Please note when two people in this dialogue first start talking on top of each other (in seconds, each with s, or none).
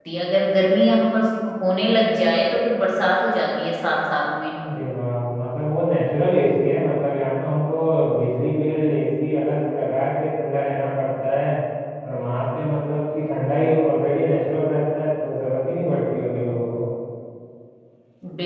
none